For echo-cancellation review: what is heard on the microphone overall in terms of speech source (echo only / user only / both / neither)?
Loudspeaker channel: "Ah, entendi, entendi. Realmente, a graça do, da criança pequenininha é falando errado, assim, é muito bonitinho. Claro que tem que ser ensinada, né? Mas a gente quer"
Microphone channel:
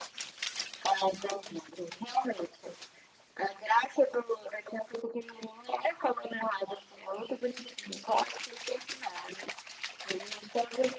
echo only